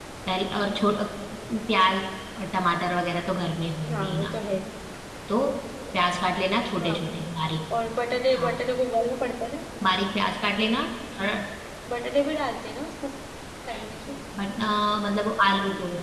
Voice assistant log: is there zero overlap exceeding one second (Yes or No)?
Yes